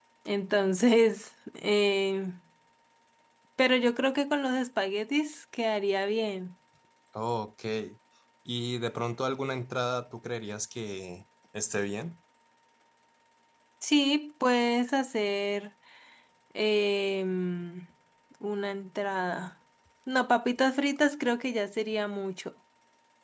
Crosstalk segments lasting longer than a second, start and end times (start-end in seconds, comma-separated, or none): none